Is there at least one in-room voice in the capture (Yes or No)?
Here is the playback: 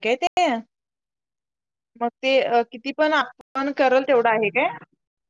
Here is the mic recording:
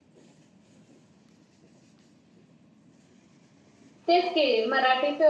Yes